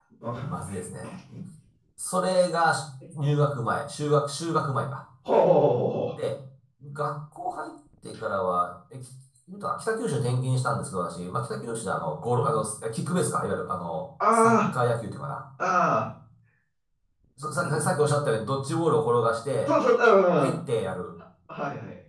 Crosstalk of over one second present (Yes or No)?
No